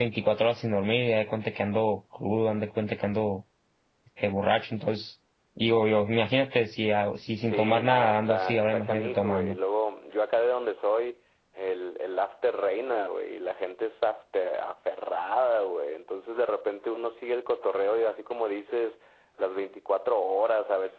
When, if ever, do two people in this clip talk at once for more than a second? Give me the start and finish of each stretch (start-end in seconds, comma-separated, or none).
7.5-9.6